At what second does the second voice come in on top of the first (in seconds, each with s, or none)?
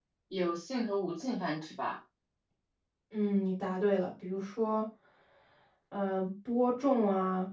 none